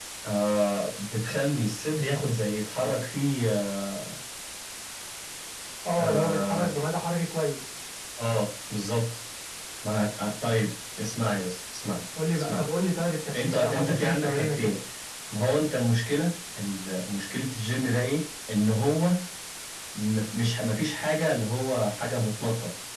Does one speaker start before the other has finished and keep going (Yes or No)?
Yes